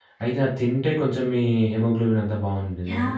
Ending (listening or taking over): taking over